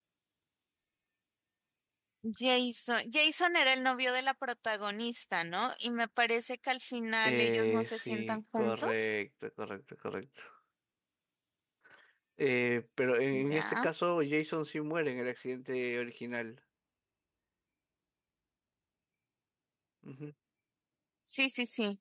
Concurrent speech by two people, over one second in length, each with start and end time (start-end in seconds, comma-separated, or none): 7.2-9.1